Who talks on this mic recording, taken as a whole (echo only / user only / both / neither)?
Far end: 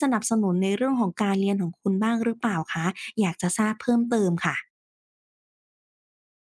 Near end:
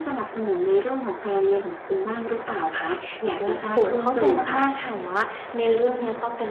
both